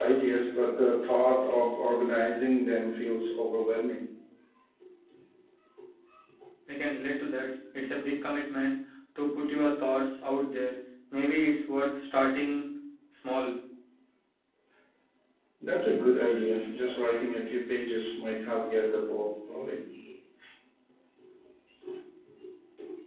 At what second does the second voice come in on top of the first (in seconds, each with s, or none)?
none